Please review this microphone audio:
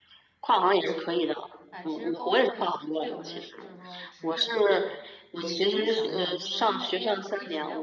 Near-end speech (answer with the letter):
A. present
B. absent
A